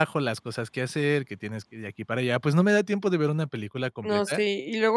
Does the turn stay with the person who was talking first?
No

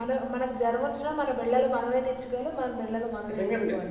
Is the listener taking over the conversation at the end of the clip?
Yes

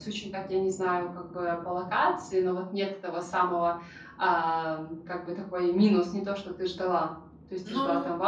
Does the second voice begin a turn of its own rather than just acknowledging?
No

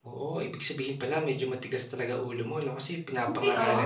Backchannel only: Yes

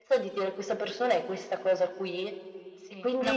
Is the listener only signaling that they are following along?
No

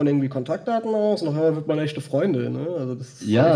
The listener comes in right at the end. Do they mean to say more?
Yes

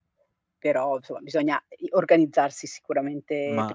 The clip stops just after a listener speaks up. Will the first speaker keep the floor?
No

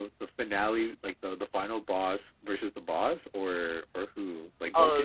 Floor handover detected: Yes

